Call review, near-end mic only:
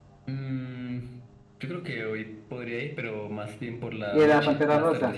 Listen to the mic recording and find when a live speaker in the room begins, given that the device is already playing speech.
4.1 s

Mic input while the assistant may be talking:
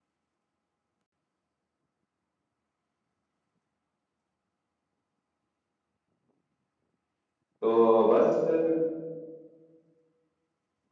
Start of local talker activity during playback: 7.4 s

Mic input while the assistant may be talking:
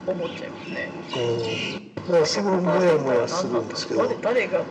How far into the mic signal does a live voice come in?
none

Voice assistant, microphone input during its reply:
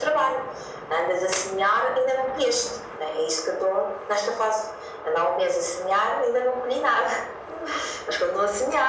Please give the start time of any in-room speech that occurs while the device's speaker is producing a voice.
none

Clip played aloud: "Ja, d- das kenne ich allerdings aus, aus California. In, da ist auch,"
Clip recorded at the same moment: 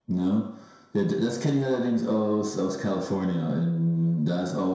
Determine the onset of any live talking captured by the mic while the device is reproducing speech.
none

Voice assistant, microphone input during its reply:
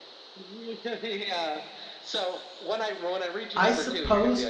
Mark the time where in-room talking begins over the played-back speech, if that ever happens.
3.5 s

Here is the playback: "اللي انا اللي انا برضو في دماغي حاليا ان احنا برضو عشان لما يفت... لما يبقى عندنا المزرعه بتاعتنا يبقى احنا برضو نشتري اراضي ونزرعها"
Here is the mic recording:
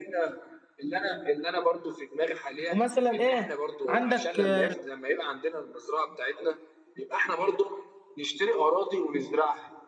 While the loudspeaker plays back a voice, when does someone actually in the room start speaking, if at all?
2.7 s

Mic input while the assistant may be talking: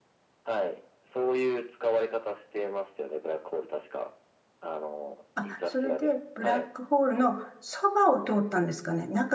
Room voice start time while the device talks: 5.3 s

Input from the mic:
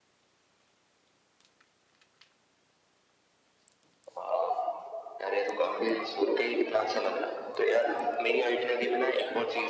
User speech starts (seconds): none

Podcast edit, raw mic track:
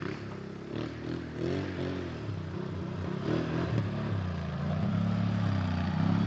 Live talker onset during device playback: none

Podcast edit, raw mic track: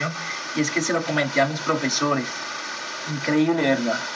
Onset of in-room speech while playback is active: none

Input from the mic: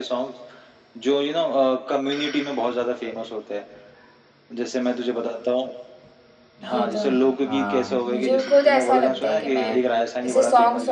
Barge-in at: 6.6 s

